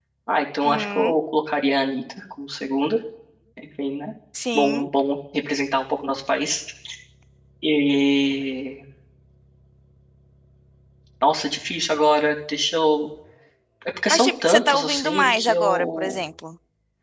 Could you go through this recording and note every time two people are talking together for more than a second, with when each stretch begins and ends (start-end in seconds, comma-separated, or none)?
14.1-16.2